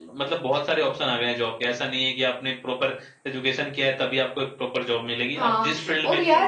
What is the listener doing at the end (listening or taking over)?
taking over